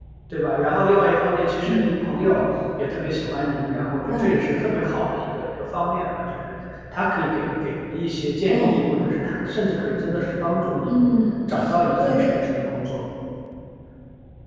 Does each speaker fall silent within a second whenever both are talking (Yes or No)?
Yes